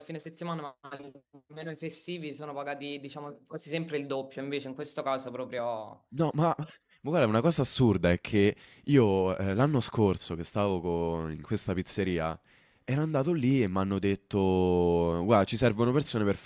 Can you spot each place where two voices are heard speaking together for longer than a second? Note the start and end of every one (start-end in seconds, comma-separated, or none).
none